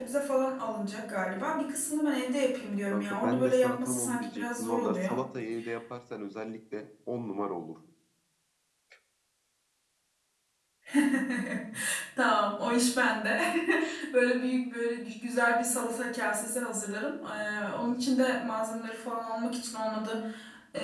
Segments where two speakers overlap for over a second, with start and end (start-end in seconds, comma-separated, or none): 2.9-5.1